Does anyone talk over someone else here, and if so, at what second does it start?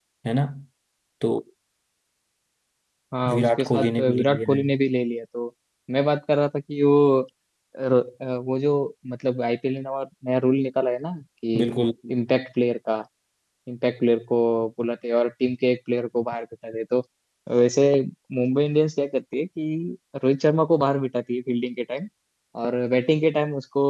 3.3 s

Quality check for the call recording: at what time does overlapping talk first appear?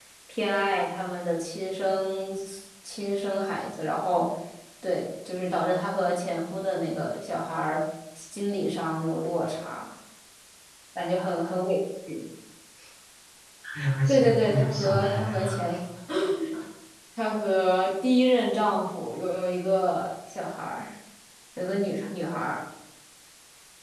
14.1 s

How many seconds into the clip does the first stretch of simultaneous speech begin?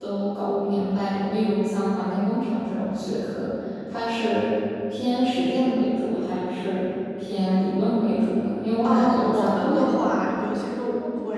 8.8 s

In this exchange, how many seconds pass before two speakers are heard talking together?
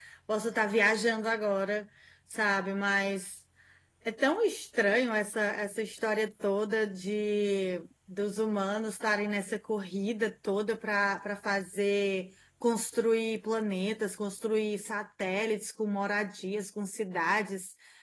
none

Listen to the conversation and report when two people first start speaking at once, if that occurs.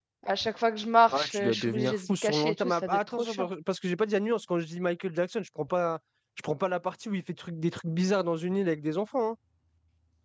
1.1 s

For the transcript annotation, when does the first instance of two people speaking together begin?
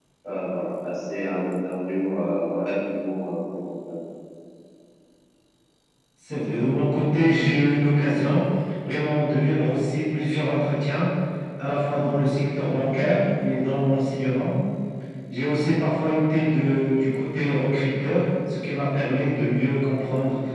none

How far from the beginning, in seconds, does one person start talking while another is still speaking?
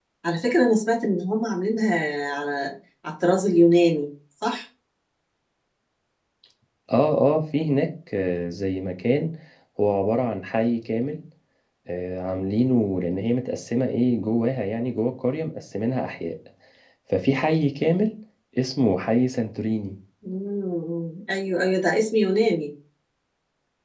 none

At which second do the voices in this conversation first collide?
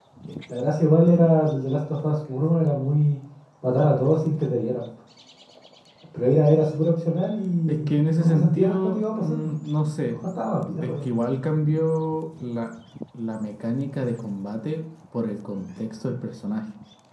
7.7 s

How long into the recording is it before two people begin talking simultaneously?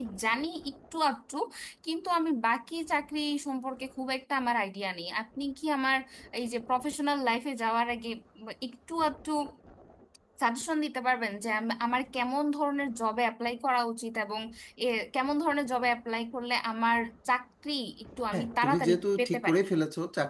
18.3 s

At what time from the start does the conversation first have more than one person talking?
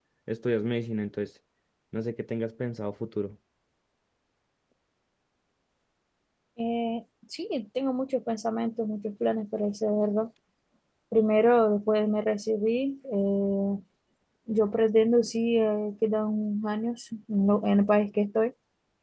none

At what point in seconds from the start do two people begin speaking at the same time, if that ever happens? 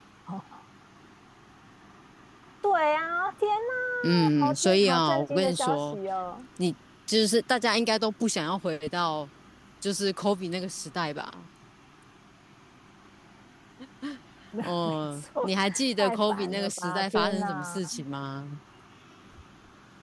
4.0 s

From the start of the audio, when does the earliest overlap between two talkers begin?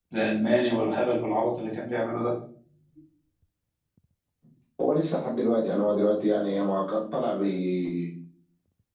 none

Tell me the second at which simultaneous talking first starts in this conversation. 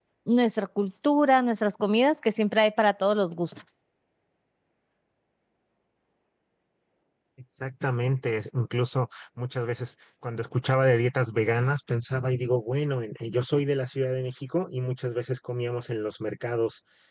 none

